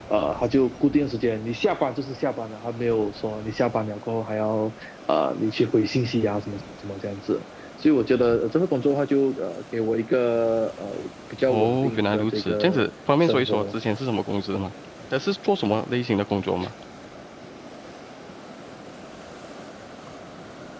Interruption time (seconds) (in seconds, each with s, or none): 11.5 s